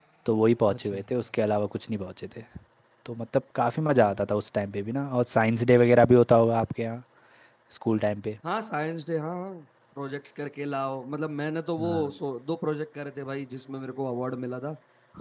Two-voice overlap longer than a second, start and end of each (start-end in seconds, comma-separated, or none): none